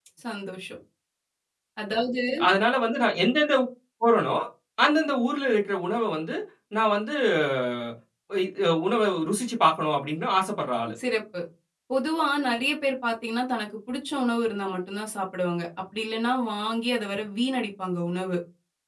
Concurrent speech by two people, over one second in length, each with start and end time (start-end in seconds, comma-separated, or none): none